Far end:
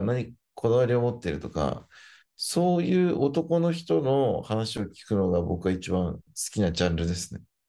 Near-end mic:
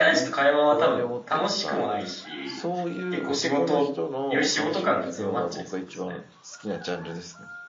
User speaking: Yes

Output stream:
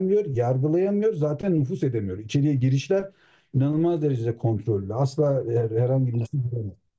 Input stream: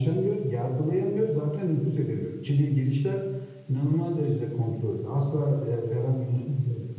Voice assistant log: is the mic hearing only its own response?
Yes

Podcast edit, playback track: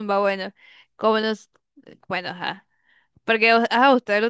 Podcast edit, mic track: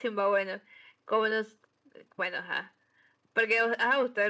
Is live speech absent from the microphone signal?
Yes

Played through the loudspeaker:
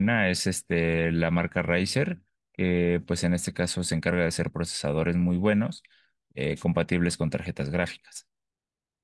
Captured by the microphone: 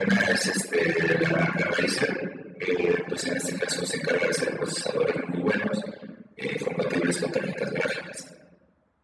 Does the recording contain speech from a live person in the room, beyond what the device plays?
No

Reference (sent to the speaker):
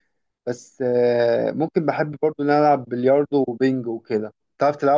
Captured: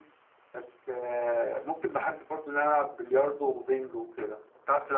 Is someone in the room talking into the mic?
No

